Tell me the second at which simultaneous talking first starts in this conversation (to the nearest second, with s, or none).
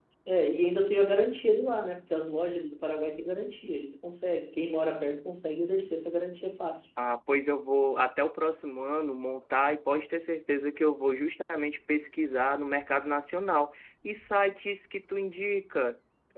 none